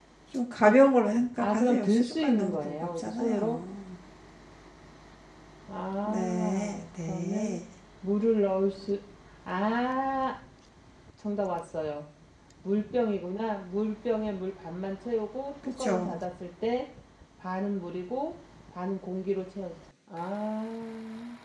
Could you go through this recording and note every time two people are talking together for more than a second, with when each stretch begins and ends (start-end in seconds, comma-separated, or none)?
1.4-3.6, 6.0-7.6